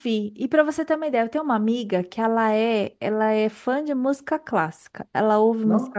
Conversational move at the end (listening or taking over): listening